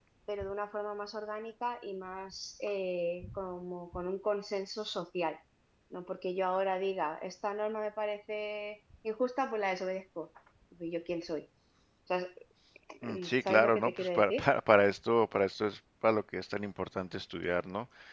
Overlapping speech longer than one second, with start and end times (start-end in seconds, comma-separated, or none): 13.0-14.5